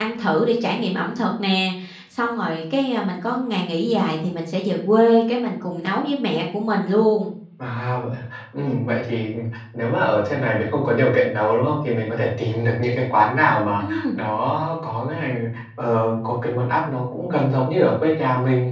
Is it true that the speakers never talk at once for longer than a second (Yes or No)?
Yes